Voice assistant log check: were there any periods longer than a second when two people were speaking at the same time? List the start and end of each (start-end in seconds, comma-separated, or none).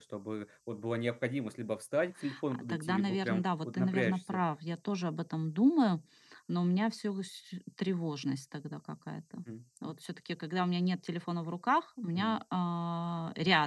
2.5-4.4